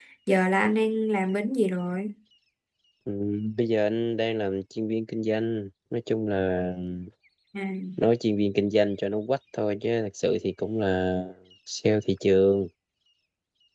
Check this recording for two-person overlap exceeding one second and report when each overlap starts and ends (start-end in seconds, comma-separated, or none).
none